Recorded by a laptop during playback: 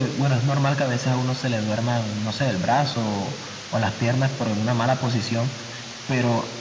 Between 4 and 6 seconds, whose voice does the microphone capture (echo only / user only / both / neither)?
echo only